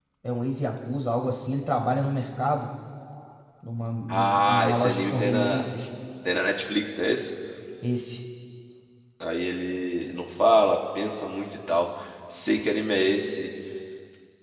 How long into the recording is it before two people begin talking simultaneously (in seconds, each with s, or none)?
4.1 s